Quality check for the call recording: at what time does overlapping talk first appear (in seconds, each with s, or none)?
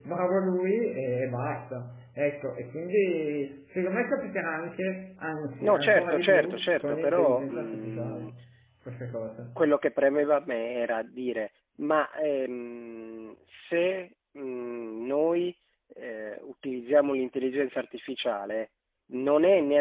5.6 s